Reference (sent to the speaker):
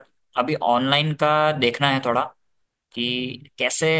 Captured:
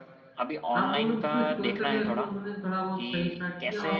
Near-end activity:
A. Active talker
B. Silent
A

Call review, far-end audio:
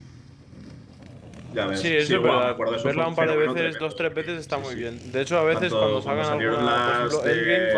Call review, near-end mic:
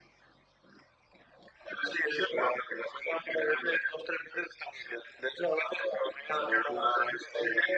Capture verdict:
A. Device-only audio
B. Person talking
A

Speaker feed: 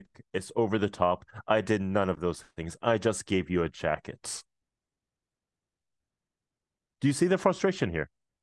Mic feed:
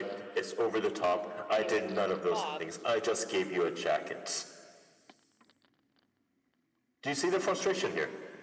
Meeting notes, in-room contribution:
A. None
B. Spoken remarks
B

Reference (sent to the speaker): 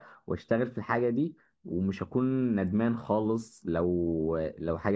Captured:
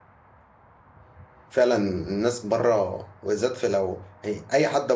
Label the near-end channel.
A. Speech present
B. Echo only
A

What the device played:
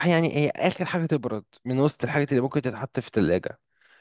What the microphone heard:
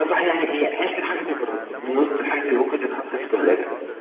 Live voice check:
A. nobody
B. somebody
B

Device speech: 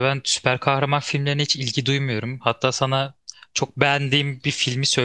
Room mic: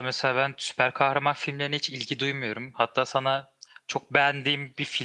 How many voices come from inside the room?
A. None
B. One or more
A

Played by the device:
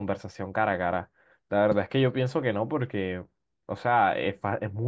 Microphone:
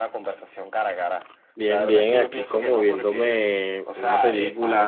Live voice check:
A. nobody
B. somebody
B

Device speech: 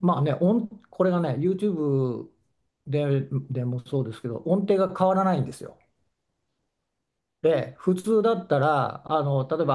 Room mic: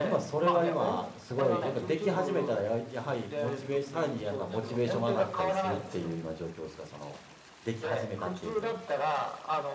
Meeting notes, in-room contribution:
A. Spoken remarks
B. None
A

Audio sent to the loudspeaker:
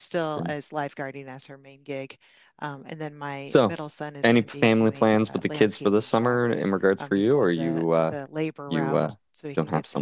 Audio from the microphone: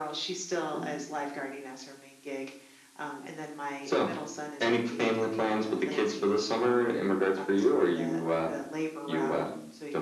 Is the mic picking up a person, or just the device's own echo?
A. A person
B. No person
B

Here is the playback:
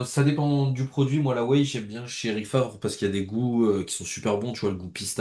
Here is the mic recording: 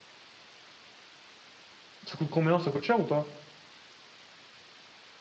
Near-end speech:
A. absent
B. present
B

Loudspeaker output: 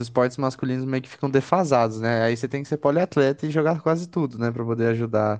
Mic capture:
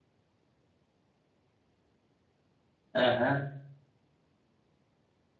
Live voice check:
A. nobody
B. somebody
B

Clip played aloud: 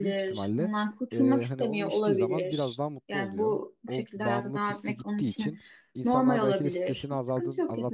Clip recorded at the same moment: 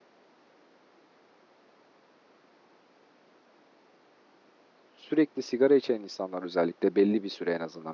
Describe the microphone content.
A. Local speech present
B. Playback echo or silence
A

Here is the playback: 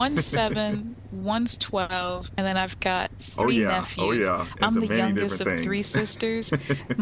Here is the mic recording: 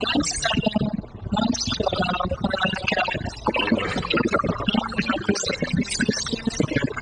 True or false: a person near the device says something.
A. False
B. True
B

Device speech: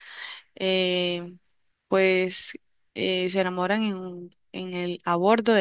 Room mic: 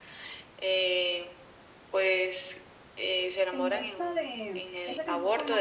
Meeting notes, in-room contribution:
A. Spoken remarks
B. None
A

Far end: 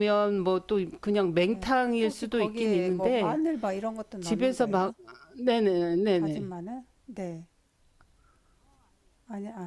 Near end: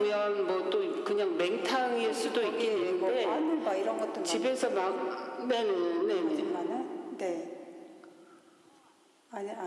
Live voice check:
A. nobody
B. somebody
A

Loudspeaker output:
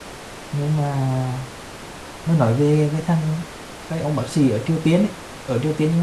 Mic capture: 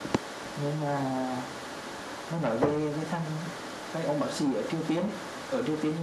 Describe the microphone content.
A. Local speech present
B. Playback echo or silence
B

